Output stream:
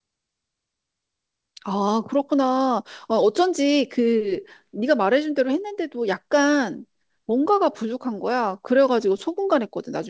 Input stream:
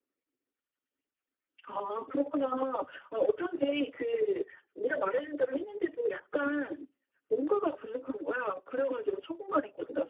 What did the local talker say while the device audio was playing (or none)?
none